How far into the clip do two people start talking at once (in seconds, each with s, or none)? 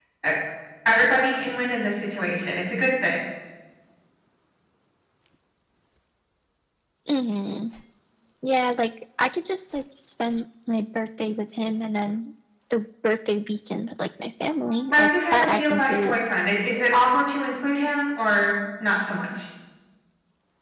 14.7 s